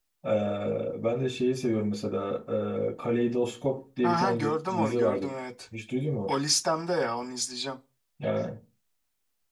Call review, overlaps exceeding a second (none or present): present